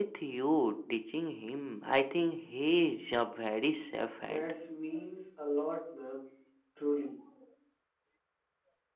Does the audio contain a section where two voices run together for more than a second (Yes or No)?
No